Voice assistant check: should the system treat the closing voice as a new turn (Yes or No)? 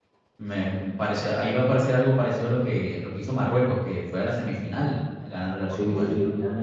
Yes